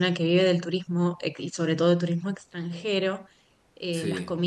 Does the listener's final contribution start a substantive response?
No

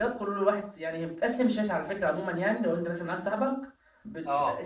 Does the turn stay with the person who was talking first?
Yes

